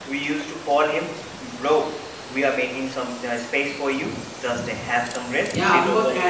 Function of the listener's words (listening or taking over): taking over